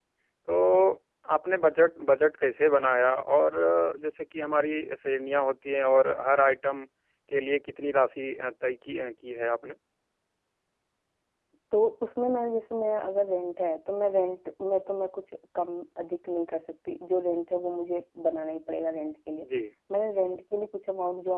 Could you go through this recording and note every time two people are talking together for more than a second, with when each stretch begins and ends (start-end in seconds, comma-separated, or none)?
none